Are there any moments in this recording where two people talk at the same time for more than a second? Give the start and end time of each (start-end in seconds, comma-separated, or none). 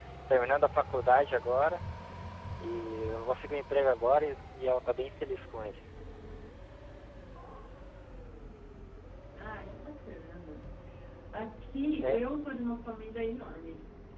none